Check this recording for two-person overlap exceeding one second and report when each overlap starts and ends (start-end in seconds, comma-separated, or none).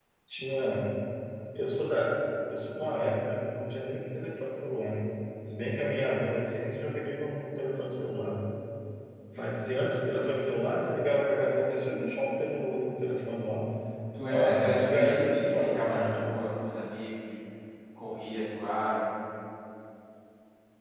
14.3-16.2